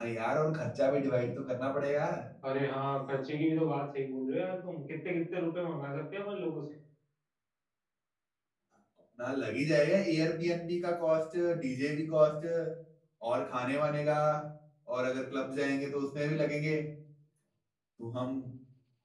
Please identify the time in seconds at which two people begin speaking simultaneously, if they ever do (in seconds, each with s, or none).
none